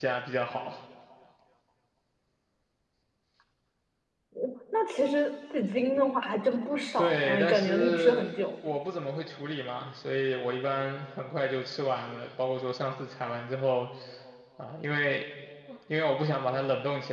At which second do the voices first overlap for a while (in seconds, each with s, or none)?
7.0 s